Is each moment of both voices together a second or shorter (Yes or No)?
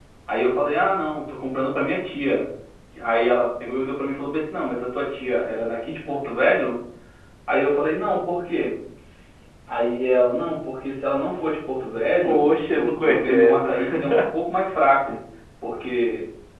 No